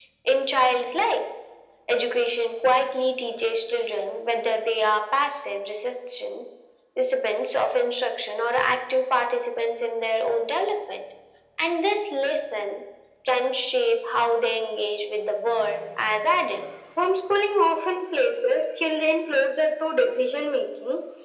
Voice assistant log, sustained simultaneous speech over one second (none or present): none